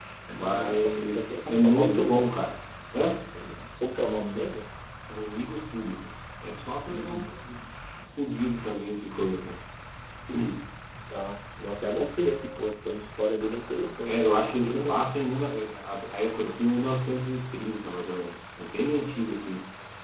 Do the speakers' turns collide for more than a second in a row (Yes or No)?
Yes